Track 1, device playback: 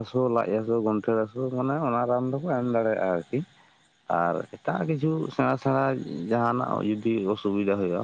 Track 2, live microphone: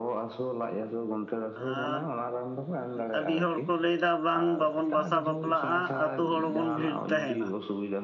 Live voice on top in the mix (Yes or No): Yes